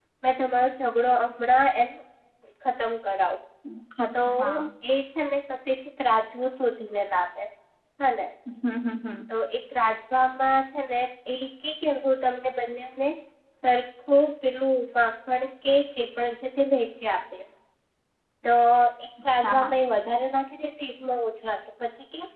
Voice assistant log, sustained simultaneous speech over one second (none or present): none